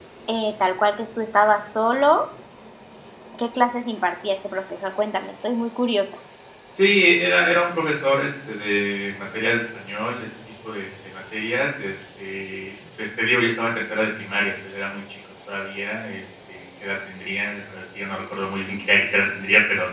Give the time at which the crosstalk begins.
none

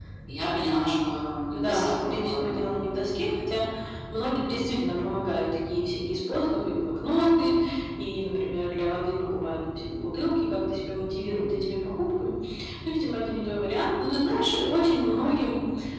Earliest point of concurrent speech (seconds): 1.5 s

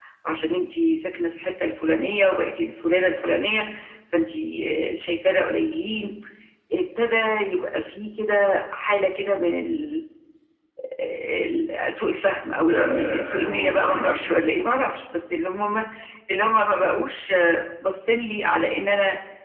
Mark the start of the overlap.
12.6 s

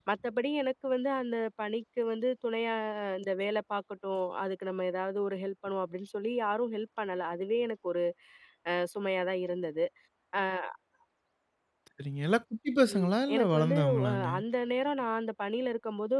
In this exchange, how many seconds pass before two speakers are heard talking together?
12.9 s

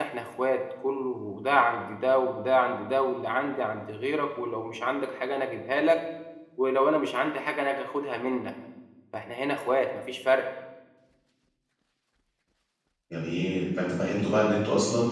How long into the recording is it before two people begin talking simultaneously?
none

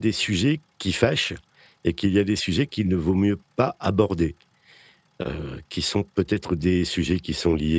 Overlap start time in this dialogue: none

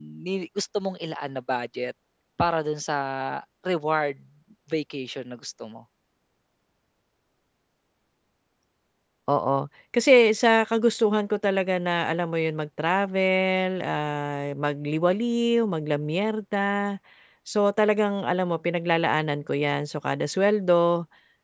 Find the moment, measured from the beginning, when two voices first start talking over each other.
none

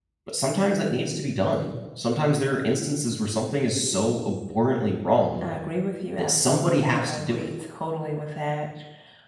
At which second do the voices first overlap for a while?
6.2 s

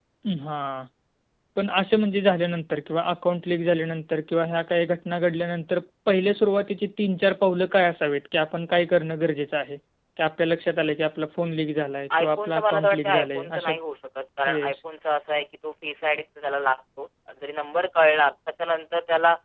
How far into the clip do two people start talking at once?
12.2 s

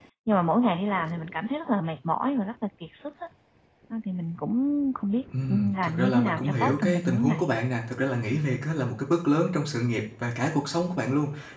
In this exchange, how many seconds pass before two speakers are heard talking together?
5.3 s

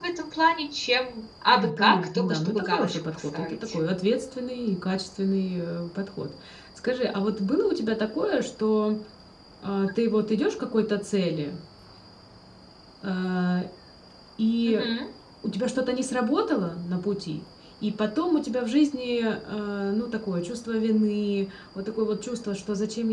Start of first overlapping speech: 1.5 s

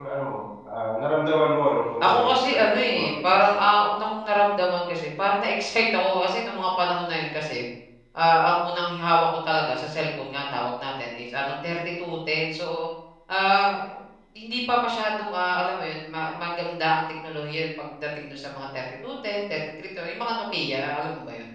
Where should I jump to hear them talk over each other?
2.0 s

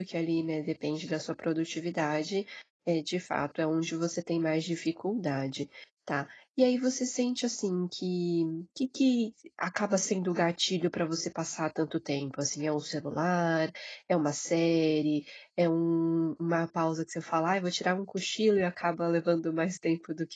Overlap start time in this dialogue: none

